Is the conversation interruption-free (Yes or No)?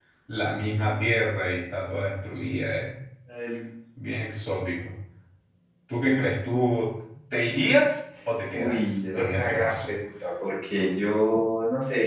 No